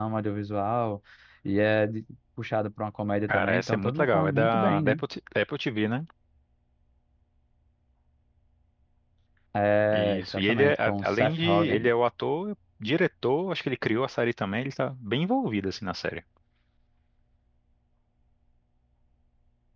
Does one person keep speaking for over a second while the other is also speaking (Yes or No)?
Yes